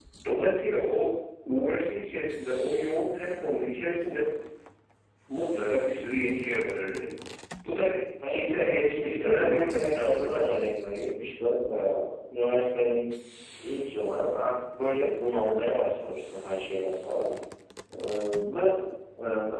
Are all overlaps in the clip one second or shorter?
No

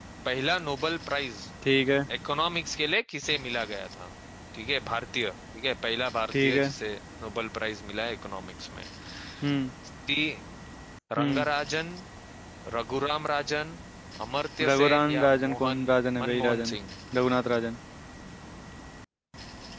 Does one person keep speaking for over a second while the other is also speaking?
Yes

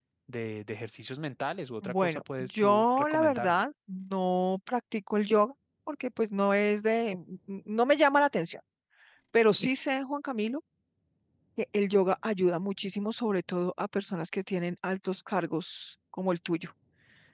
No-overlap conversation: No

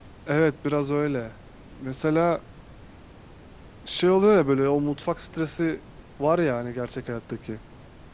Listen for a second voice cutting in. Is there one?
No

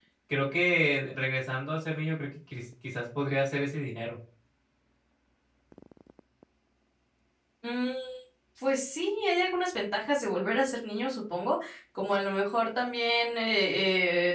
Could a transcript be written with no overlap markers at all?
Yes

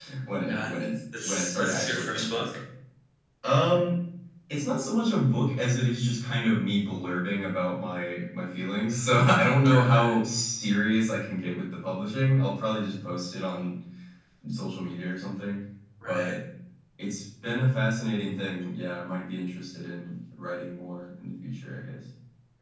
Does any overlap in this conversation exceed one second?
Yes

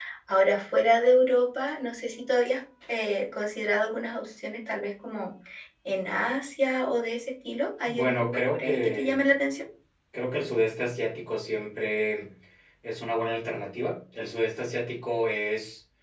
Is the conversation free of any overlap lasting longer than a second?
No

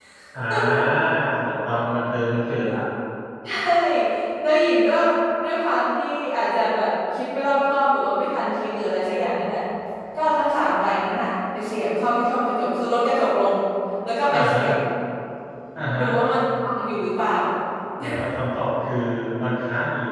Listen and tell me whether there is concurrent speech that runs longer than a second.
No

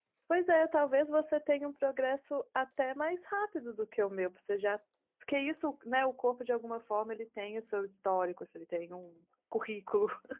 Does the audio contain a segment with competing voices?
No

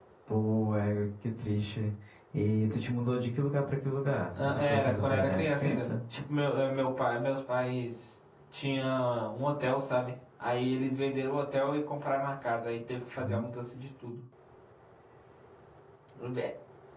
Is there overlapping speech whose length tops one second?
Yes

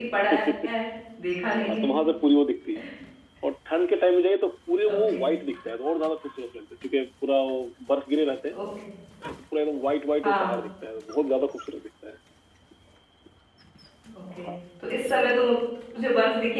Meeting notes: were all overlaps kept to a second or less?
Yes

